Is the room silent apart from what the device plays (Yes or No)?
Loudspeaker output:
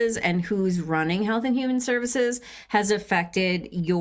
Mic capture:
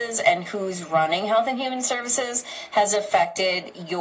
Yes